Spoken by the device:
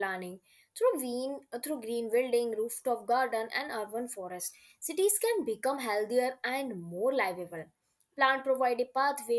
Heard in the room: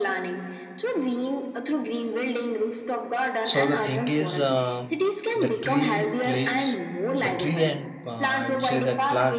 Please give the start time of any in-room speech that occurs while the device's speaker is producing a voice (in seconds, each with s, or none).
3.4 s